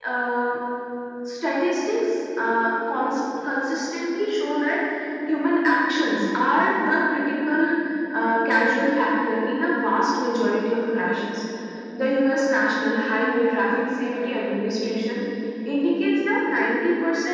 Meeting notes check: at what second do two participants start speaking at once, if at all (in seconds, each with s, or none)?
none